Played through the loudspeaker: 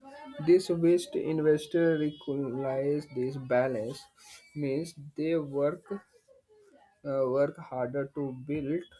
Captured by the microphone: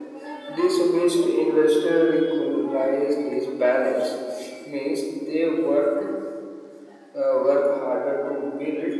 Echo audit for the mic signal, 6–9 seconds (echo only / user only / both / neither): echo only